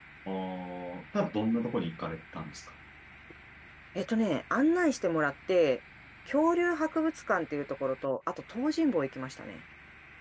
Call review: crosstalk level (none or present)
none